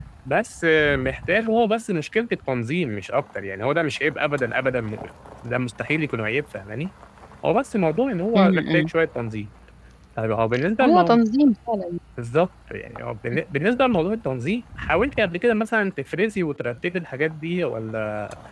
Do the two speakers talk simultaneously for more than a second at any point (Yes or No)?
No